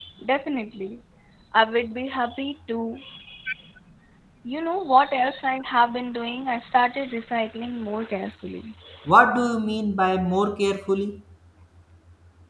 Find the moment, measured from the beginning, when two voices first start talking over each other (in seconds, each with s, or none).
none